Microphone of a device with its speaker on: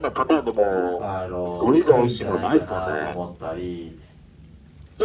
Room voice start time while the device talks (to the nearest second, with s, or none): 1 s